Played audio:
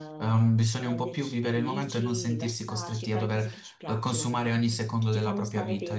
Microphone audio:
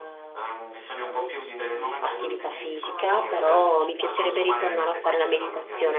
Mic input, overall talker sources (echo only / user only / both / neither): both